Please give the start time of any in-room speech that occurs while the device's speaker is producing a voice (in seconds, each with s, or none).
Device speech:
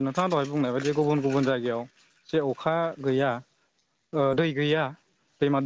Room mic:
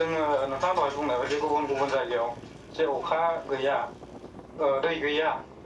none